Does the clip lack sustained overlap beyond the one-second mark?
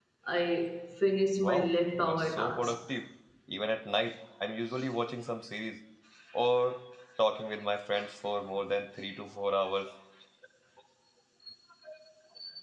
No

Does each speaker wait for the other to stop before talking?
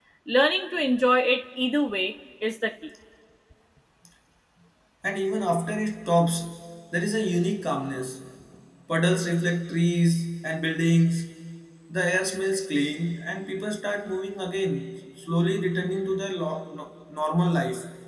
Yes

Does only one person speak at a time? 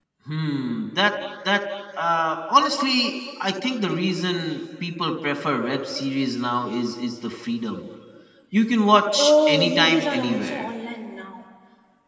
No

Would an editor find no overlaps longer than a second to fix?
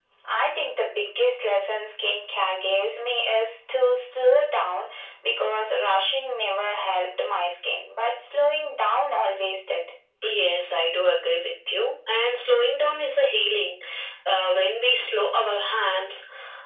Yes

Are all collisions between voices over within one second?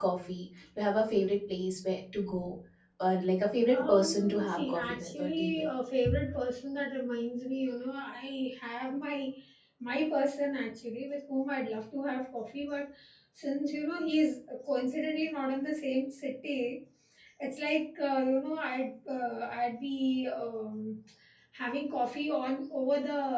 No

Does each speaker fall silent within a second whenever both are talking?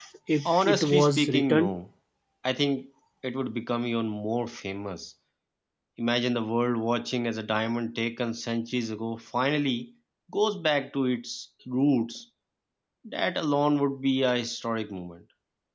No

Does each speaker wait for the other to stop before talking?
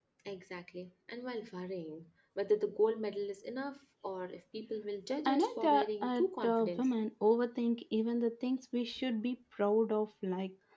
No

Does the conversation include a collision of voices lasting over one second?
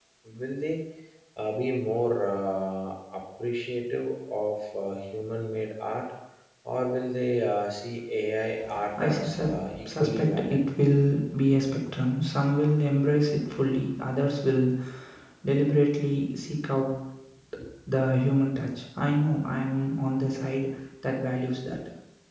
Yes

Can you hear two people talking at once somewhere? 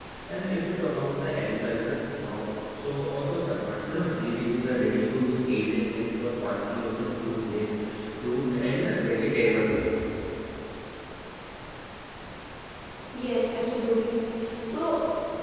No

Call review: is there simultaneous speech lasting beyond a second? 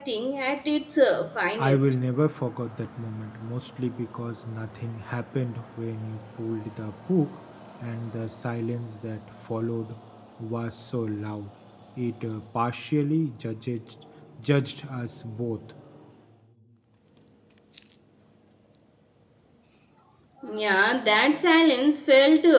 No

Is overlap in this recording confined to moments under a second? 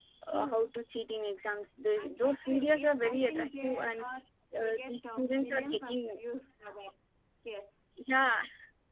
No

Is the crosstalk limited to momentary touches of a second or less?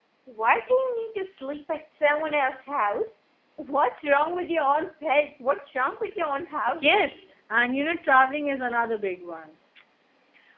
Yes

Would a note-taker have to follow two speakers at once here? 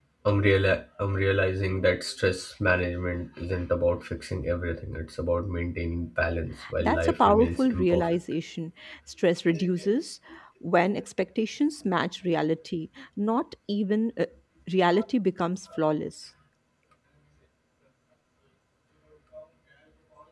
Yes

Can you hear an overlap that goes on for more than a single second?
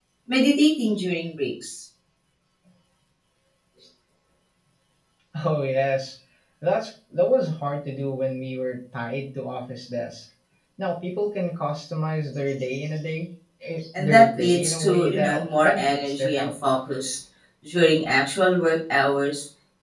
Yes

